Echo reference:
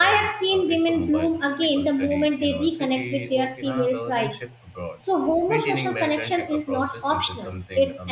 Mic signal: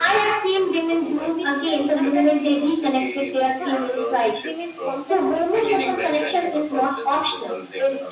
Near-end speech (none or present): present